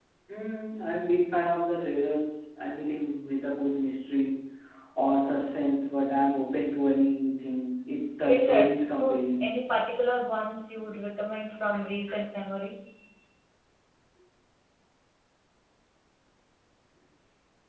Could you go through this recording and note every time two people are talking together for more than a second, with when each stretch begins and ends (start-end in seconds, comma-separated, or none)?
8.2-9.6